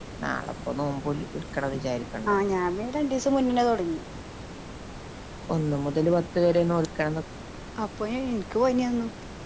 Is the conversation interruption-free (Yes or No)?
Yes